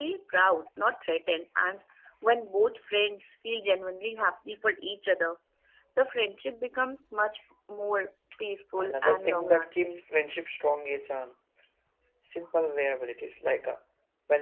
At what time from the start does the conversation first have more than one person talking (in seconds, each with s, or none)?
8.8 s